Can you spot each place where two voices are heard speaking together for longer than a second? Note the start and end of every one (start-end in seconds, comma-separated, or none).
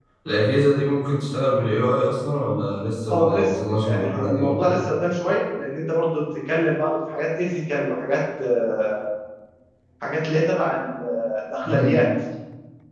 3.1-4.8